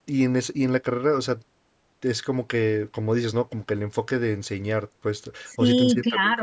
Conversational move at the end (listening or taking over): taking over